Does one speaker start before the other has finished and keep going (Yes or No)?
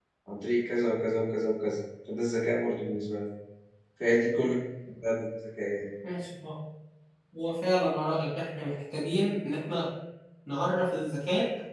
No